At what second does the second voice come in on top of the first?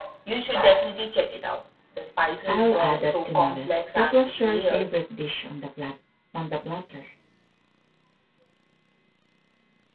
2.5 s

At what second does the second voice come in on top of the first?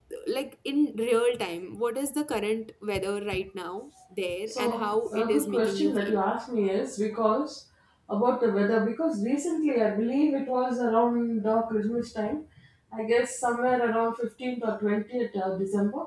4.5 s

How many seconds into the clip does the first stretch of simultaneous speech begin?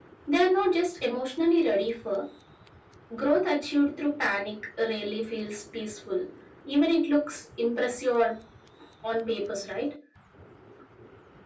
none

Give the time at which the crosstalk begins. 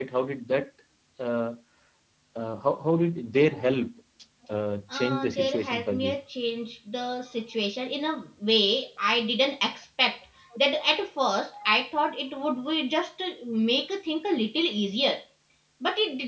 4.9 s

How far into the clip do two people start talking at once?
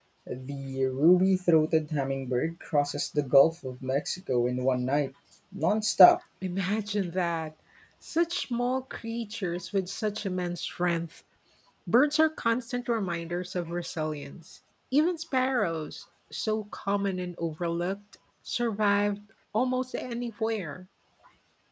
none

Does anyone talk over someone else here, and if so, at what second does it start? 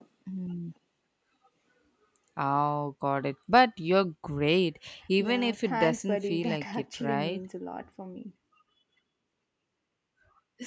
5.2 s

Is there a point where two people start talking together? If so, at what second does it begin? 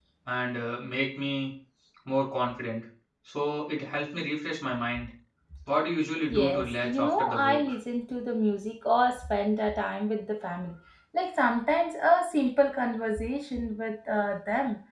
6.3 s

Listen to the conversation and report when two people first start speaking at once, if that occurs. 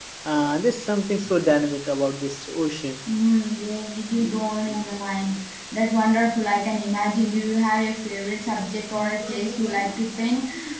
none

